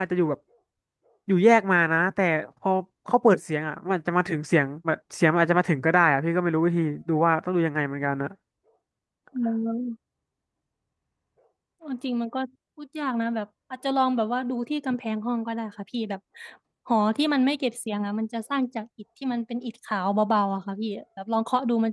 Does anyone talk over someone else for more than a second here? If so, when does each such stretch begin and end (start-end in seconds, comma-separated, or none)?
none